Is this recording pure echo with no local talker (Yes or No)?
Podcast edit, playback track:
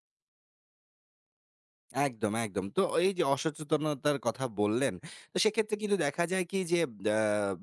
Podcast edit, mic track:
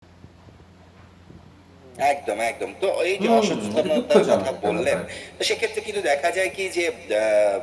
No